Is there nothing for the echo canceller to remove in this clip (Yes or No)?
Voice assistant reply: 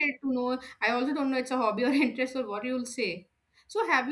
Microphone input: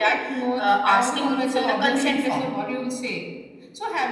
No